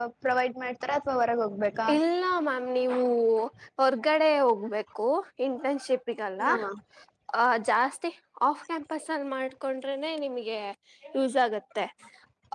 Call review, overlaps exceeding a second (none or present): none